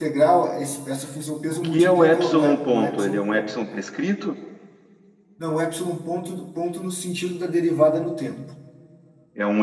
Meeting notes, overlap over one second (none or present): present